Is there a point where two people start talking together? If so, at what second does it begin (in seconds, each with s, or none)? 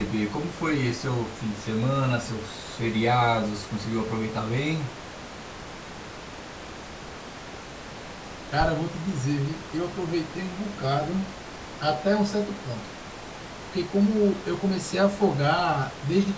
none